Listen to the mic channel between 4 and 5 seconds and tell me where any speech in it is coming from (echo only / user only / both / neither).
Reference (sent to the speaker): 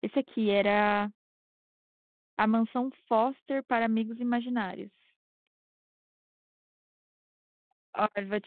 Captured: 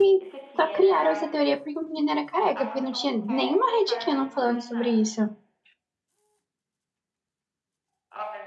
both